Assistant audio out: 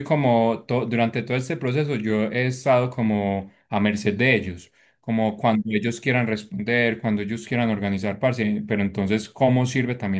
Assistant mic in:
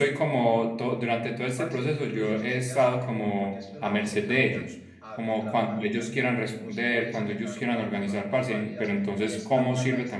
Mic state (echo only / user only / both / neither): both